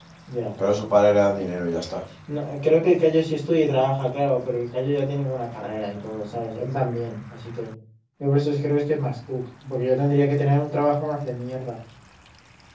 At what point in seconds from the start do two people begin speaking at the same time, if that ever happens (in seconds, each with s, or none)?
none